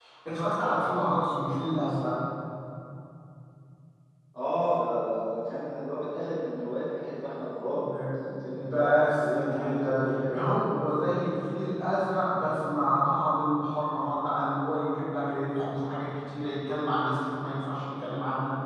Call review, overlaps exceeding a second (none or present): present